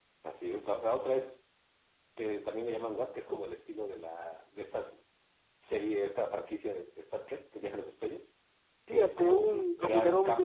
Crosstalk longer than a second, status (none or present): present